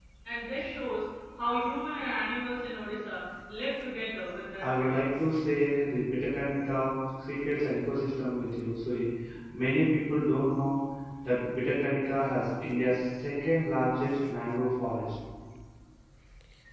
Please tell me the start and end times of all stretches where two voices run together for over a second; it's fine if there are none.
none

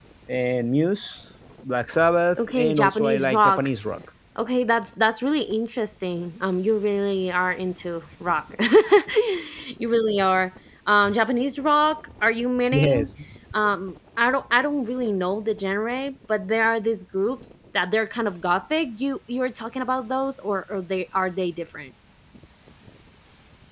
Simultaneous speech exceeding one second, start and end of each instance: 2.4-3.7

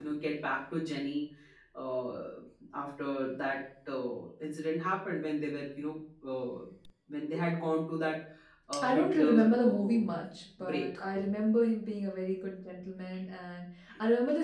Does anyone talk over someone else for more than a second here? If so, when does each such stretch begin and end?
8.8-10.0

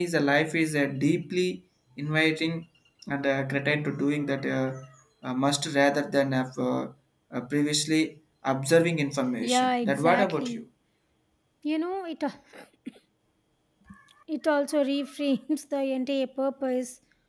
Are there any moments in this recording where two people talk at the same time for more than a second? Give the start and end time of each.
9.4-10.6

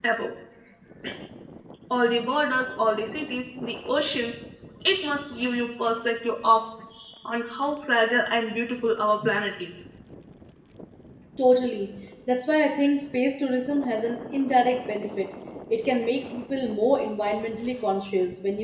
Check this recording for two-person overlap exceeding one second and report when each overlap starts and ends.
none

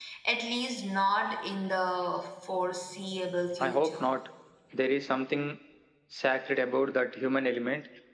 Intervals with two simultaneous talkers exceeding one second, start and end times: none

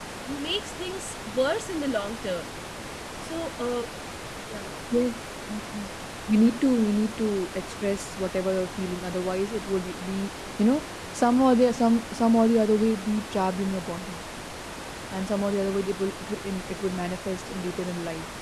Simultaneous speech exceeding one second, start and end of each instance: none

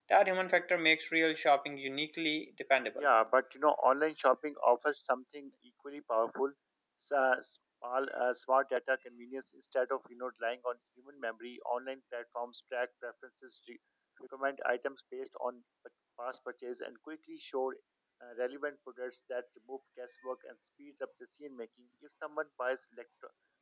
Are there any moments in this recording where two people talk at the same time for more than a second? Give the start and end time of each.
none

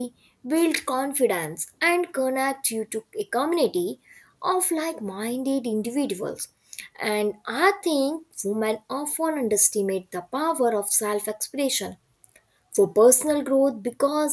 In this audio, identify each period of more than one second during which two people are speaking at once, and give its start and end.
none

